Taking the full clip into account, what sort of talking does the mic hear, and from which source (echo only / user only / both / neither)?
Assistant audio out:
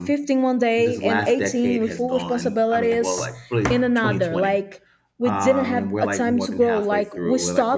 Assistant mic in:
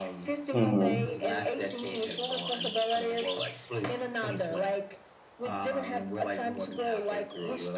both